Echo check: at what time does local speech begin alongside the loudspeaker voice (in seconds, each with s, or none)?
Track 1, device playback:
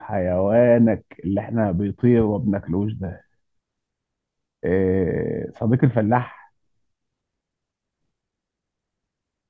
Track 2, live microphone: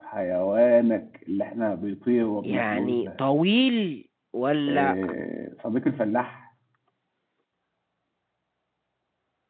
2.5 s